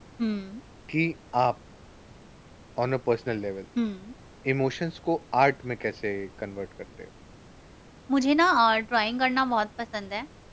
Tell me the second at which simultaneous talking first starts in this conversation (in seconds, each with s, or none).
none